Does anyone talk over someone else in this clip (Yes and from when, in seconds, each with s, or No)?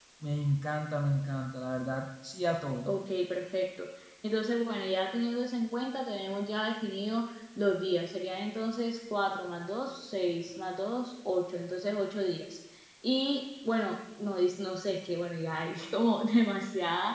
No